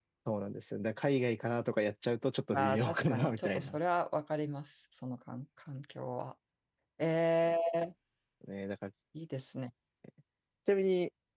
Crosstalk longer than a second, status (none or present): present